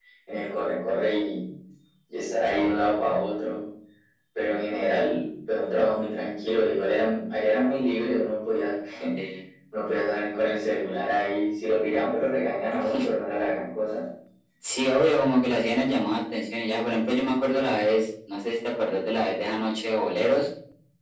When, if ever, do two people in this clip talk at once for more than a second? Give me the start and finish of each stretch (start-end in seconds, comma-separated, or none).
none